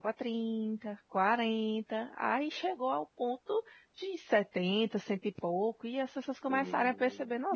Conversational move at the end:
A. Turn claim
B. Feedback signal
A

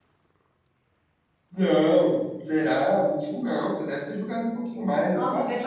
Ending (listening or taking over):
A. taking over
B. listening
A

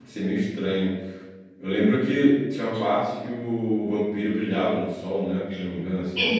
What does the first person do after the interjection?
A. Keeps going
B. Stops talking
B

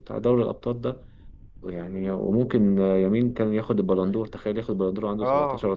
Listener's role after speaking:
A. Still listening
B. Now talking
B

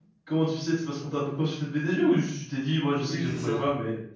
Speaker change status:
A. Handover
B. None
A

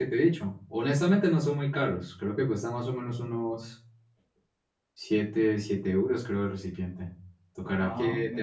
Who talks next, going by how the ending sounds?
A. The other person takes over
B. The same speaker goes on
B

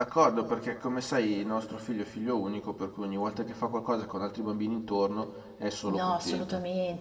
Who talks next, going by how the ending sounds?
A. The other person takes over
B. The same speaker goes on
A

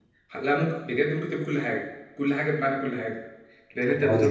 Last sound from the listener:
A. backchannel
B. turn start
A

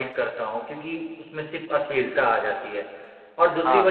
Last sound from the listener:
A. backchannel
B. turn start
B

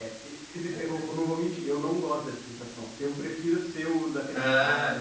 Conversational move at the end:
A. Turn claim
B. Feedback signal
B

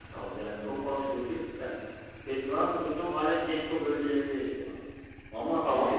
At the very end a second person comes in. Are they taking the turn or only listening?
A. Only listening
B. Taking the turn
A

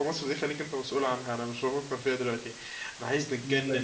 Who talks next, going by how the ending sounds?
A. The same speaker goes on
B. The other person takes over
A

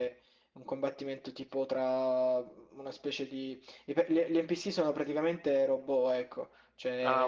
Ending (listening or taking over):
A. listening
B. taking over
A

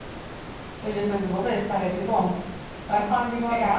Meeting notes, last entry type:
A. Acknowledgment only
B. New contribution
A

